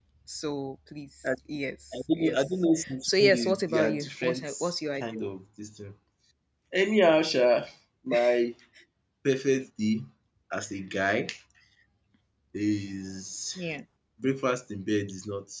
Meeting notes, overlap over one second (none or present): present